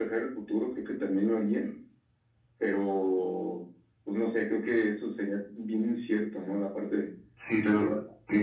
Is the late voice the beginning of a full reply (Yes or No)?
Yes